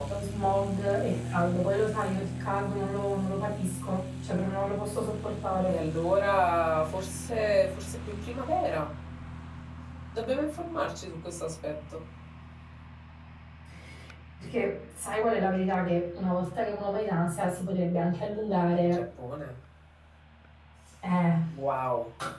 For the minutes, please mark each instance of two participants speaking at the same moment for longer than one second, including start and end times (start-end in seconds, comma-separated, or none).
none